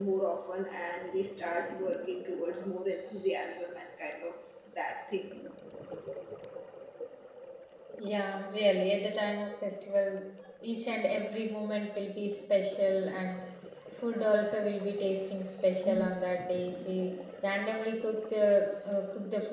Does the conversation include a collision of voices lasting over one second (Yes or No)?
No